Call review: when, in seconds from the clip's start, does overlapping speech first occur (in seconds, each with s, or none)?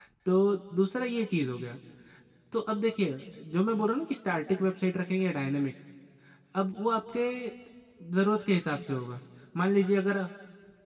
none